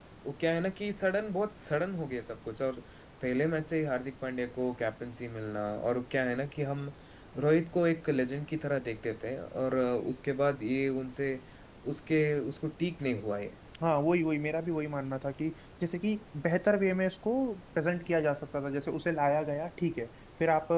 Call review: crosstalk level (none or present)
none